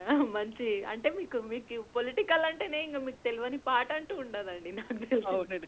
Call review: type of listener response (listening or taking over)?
taking over